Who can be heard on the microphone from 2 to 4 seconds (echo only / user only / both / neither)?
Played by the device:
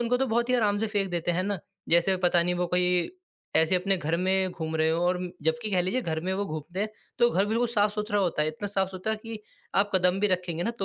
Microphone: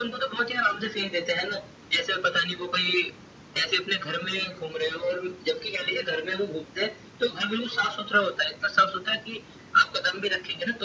echo only